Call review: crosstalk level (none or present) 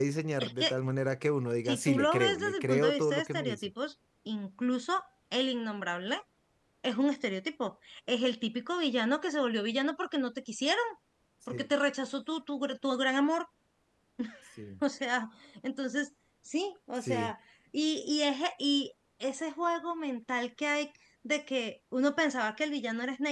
present